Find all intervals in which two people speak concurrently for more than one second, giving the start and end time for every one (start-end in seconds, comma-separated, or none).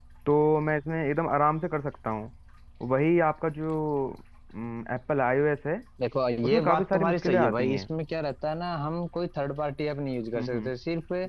6.4-7.9